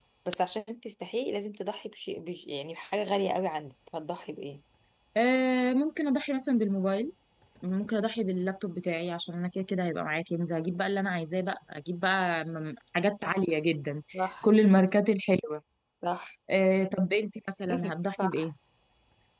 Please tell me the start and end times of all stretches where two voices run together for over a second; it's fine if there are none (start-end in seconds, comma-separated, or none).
none